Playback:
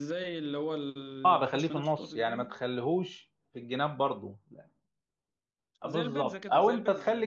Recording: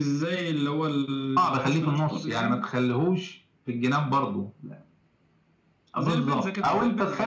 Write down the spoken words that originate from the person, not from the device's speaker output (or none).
none